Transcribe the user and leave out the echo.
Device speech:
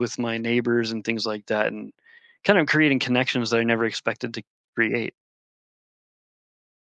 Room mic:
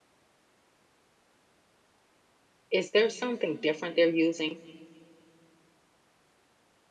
is there something different they're using?

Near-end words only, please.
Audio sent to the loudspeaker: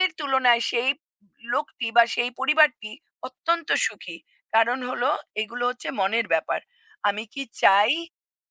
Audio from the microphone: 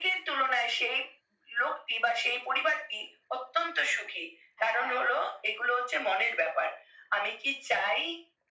হ্যাঁ,

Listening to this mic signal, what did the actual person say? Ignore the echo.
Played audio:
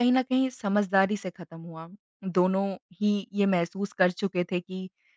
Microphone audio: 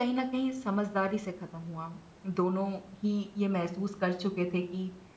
none

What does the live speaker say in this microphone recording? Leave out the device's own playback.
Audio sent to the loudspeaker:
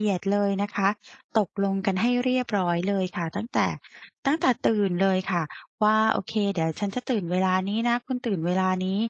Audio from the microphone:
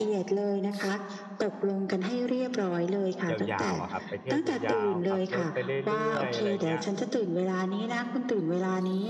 ยาวๆอะครับไปเที่ยวยาวๆขับรถไปเรื่อยๆอะไรอย่างเงี้ย

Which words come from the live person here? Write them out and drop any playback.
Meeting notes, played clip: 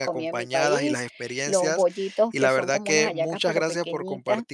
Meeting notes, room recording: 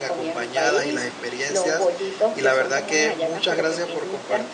none

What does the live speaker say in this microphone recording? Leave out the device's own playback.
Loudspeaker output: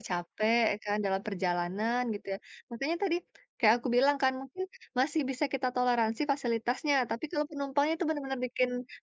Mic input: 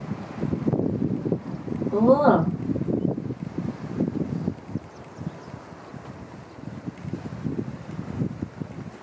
Betul.

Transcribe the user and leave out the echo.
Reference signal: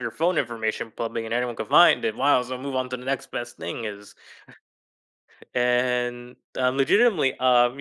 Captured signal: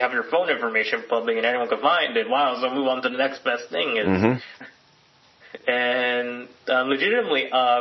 Mhm.

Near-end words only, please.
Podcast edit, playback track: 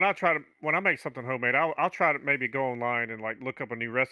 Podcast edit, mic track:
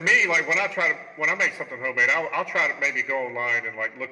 none

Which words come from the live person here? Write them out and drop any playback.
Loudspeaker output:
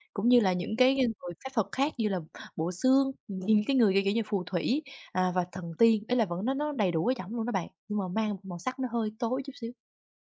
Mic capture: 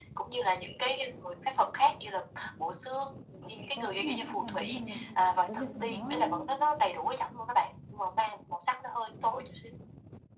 Có khi nào bạn cảm thấy rằng là, à, cái việc mà nó

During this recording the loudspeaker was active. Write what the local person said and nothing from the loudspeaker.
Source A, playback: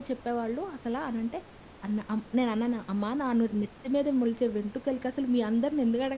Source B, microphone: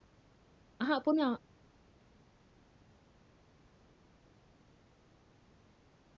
అహా! పోనీ ఆ!

